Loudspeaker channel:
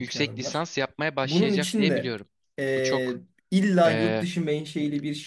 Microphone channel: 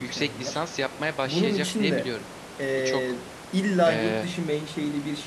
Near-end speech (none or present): none